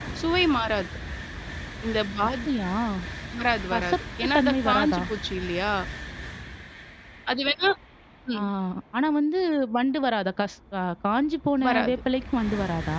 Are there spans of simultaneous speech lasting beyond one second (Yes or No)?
Yes